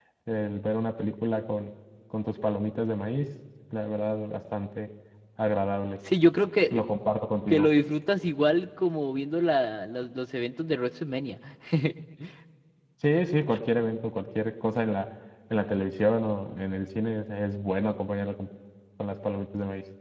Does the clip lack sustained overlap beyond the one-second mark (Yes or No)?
Yes